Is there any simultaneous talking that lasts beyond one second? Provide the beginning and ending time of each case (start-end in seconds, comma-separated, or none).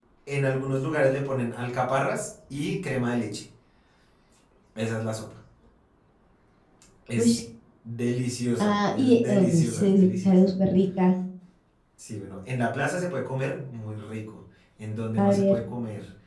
8.6-10.5